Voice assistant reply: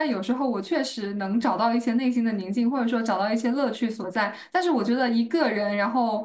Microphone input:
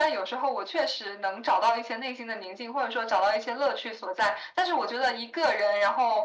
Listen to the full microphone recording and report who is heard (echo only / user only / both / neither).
echo only